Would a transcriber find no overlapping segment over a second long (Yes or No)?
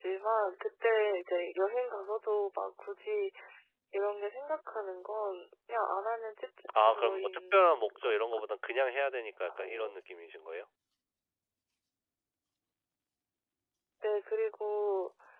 No